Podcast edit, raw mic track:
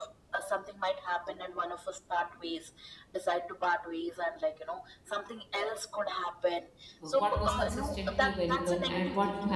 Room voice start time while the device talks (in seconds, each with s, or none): 7.0 s